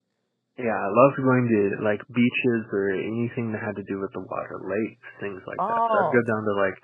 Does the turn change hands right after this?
No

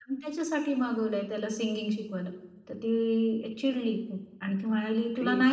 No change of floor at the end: Yes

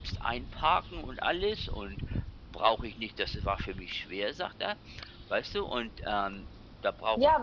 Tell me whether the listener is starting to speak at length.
Yes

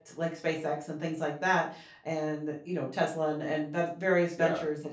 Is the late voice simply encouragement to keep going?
Yes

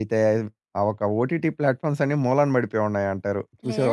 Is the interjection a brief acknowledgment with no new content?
No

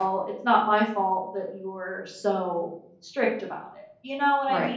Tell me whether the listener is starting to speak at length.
Yes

